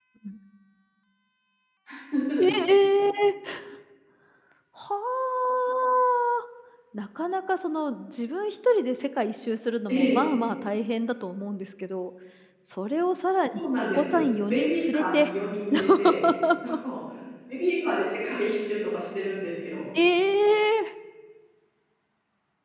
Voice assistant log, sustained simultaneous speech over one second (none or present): present